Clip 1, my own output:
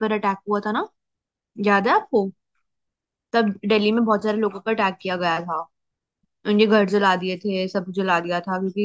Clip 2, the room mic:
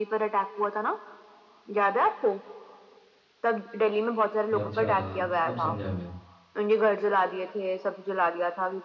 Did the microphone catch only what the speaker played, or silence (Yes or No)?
No